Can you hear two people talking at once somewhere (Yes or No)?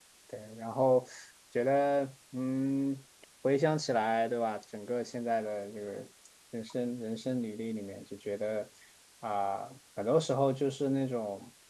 No